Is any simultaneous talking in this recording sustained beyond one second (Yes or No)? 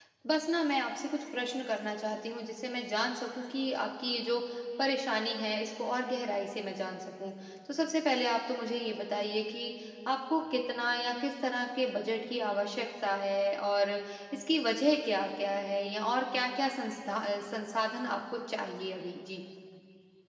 No